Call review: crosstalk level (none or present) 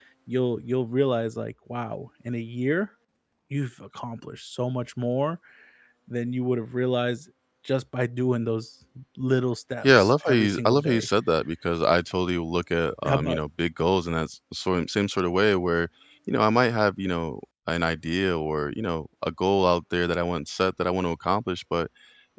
present